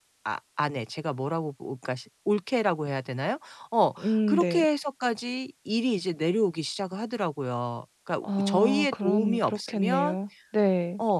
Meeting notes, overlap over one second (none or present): present